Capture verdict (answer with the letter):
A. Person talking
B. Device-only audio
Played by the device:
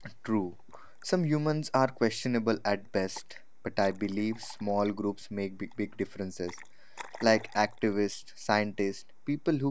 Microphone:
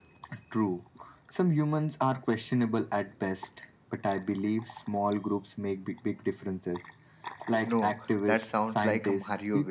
A